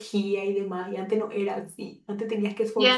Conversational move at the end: taking over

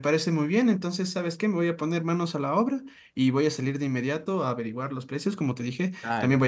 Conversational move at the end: listening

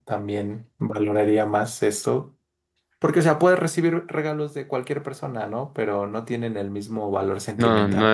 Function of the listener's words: taking over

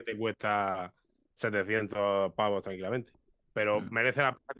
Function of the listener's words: listening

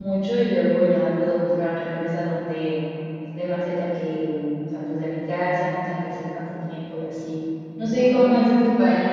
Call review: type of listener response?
listening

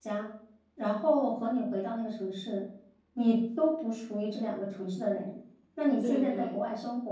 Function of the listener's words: listening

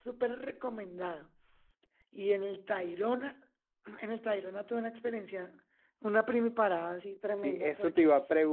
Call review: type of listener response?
taking over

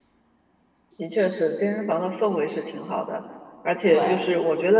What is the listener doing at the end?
listening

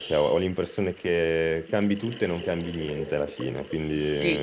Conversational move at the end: taking over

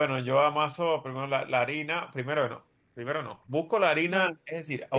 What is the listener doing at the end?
taking over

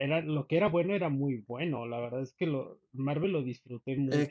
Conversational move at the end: taking over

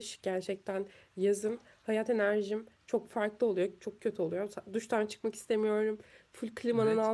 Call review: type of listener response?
listening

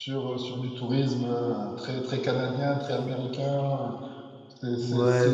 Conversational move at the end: taking over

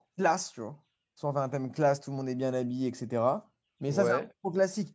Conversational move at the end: listening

